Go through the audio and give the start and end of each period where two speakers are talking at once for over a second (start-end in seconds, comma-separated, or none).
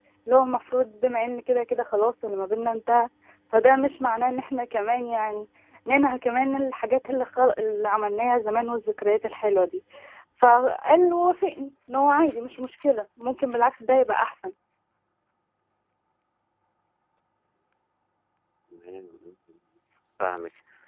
none